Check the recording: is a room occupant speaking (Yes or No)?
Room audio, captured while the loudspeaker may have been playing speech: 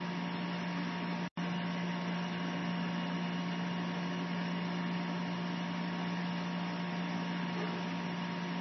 No